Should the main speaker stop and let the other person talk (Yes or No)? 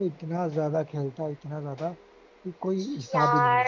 Yes